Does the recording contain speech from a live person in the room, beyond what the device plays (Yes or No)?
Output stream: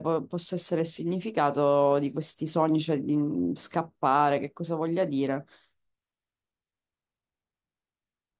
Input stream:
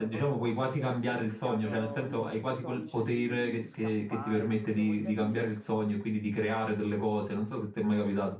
Yes